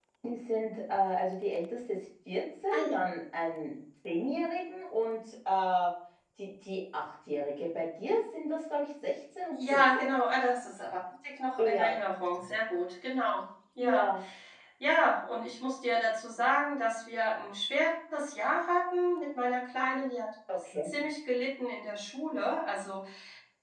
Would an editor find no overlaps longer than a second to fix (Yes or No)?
Yes